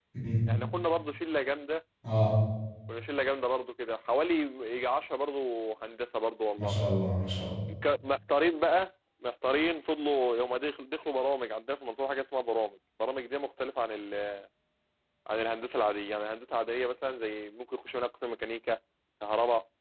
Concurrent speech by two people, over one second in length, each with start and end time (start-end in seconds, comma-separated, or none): none